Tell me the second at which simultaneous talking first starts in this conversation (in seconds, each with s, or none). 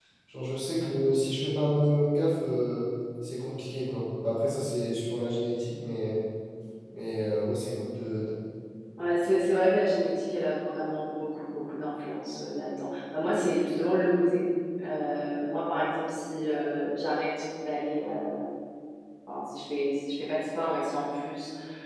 none